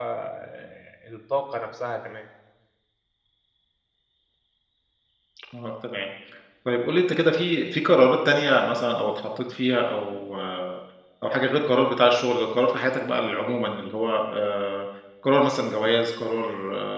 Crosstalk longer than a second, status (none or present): none